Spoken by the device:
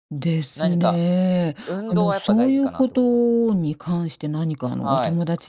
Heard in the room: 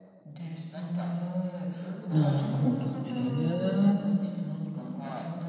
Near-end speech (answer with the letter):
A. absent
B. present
B